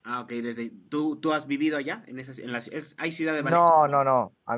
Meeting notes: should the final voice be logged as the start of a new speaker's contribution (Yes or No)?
Yes